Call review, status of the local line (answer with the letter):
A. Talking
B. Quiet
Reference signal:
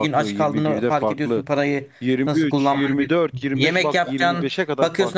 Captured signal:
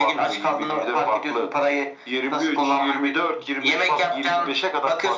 B